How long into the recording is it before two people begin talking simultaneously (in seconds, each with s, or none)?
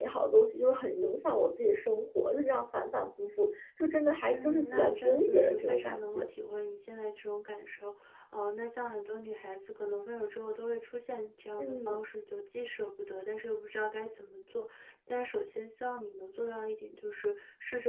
4.3 s